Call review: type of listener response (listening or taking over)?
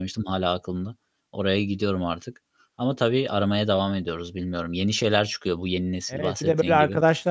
taking over